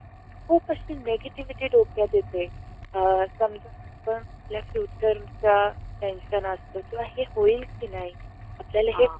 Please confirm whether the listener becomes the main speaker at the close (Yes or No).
No